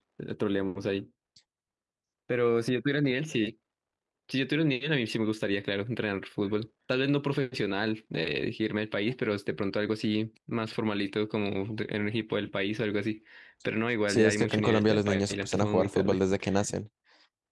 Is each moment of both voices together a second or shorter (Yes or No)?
No